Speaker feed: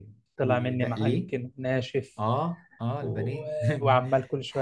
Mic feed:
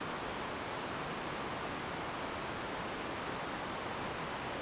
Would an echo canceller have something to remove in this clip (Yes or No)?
No